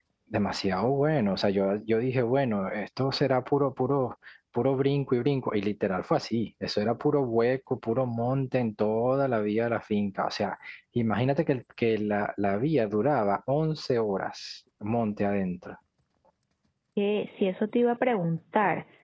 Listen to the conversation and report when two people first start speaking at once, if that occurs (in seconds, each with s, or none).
none